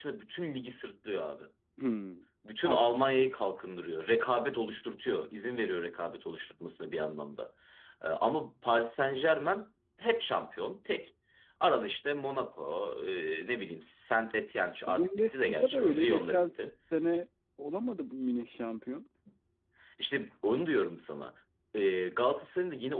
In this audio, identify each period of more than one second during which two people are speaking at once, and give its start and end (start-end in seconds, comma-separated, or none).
14.9-16.4